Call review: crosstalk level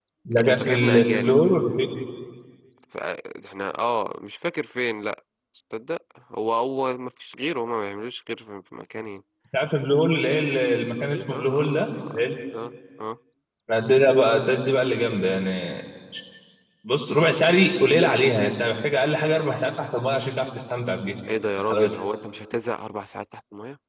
present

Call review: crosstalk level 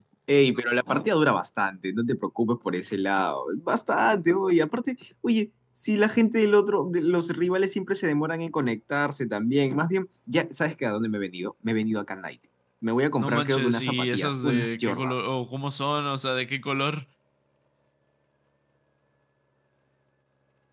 present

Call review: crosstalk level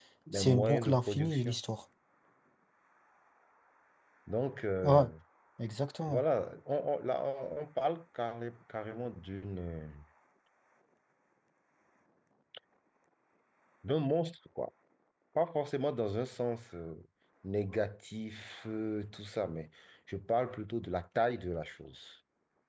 present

